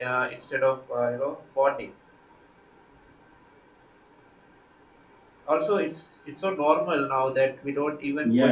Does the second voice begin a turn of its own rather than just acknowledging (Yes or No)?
Yes